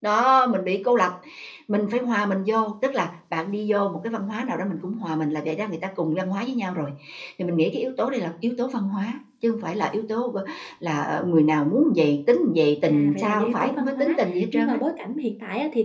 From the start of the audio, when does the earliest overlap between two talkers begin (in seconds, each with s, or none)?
12.8 s